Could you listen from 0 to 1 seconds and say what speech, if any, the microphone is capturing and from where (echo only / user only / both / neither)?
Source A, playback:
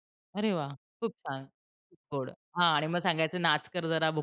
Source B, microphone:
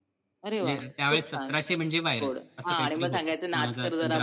both